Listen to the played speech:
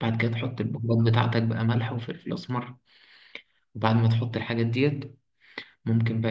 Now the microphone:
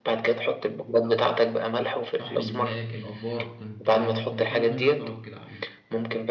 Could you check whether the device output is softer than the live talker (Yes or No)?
No